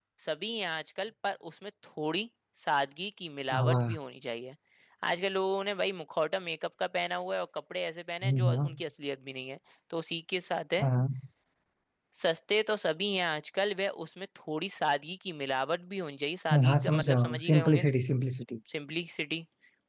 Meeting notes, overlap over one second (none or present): present